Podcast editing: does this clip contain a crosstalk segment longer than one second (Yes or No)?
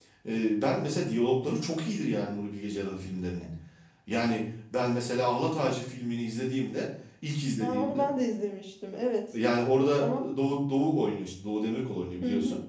No